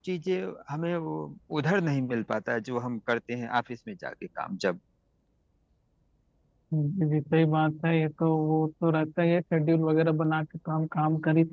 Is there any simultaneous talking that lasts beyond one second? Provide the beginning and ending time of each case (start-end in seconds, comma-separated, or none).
none